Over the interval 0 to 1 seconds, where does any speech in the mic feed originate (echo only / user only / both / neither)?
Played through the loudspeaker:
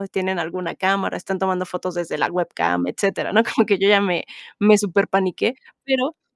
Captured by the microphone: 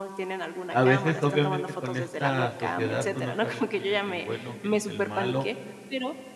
both